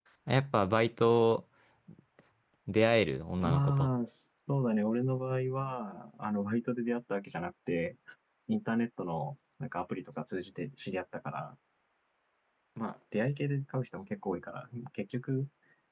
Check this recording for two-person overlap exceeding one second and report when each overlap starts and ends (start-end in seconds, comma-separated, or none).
none